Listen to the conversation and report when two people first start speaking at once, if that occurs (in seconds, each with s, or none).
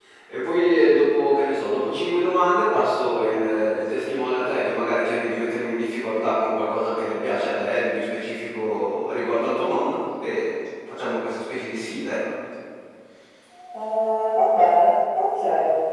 none